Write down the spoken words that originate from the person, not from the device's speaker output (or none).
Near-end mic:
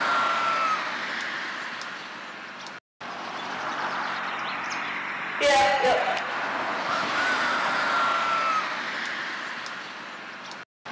Yep, yep.